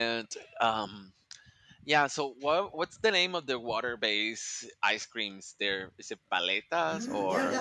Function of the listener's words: taking over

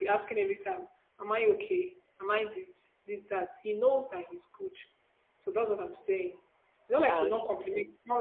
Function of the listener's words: listening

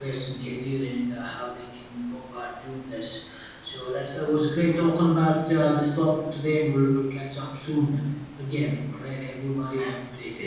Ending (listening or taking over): taking over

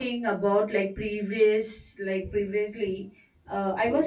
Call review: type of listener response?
listening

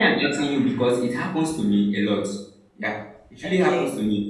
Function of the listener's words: listening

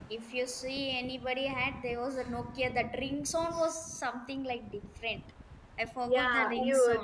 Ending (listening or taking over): taking over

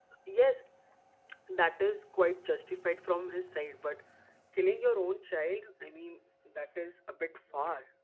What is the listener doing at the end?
taking over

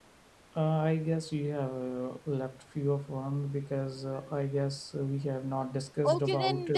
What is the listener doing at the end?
taking over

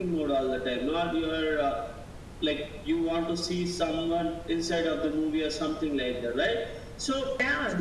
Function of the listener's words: taking over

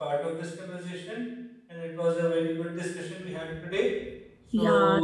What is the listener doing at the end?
taking over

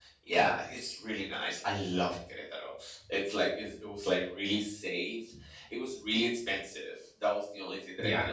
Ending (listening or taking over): listening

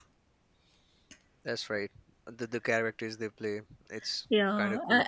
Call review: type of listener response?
taking over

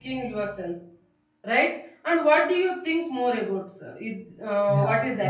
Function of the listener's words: taking over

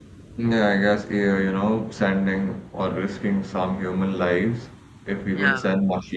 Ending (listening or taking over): listening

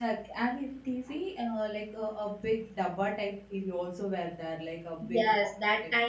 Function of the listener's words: taking over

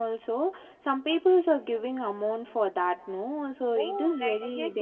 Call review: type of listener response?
taking over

